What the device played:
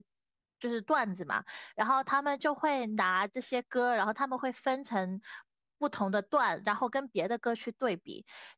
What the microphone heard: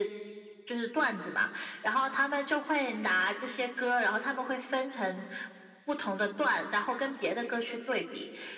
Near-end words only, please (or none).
none